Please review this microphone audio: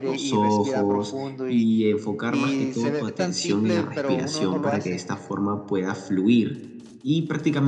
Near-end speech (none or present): present